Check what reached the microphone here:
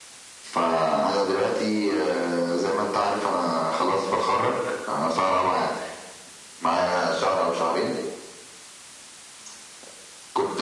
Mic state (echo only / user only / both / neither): echo only